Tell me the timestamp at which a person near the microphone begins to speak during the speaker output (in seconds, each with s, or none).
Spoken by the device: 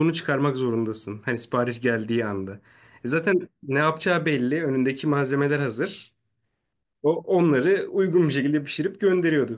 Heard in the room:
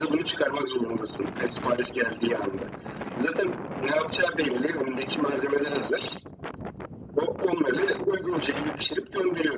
none